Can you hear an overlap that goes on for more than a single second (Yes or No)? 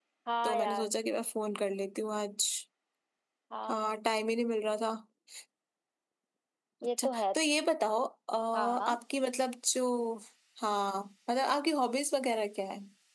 No